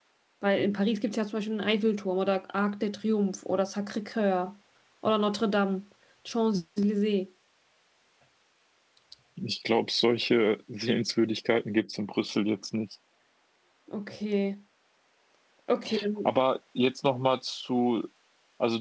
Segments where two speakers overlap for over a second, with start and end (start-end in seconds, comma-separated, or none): none